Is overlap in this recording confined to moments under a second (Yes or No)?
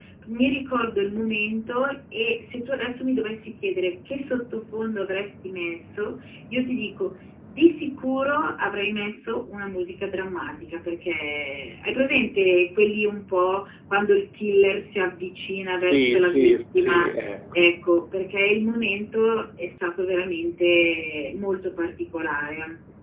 No